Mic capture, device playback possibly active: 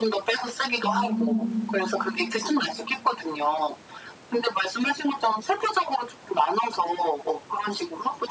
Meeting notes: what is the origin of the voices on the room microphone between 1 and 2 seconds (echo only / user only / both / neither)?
both